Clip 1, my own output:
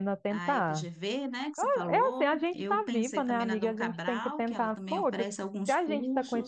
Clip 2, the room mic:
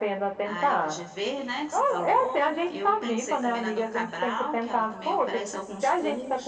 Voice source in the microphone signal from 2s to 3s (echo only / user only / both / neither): echo only